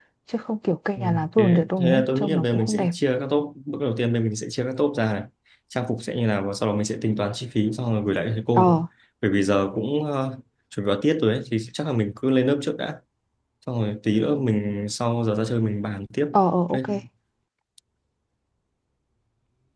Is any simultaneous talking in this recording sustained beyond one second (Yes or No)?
Yes